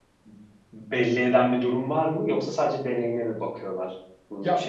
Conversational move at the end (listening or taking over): taking over